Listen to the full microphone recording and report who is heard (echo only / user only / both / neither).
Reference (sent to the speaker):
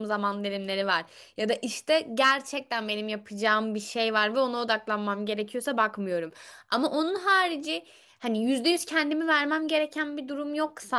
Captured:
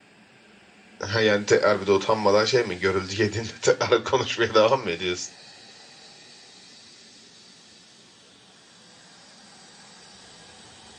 user only